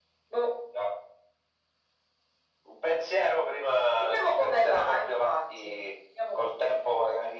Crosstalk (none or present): present